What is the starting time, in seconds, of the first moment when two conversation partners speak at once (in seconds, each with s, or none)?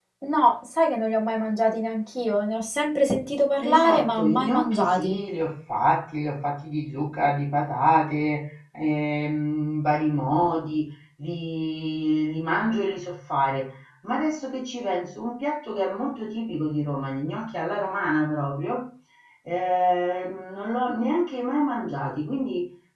3.6 s